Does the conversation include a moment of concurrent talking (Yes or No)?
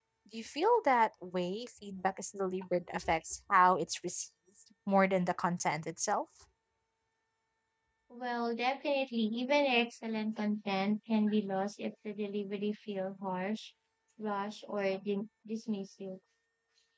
No